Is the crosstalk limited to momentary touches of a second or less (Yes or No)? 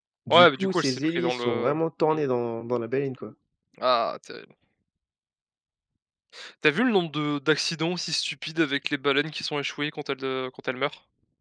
No